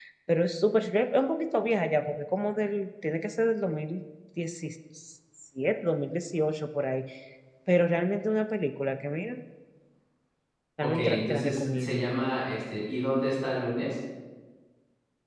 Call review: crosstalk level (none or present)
present